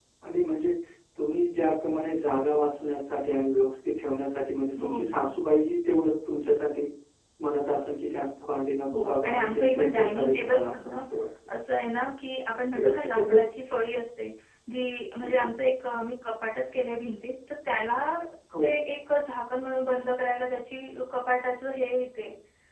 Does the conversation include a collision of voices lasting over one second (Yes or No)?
Yes